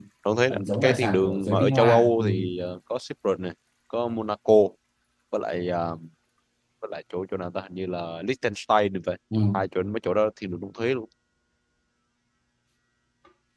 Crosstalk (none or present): present